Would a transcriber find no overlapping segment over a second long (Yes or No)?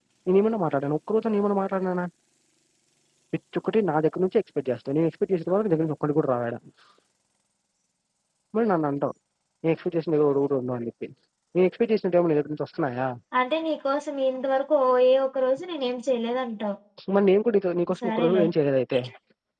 Yes